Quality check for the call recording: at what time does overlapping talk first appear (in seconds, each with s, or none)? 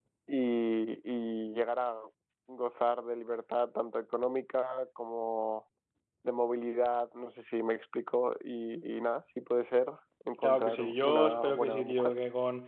10.4 s